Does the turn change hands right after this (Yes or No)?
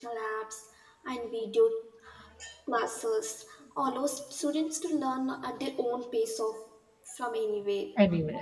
No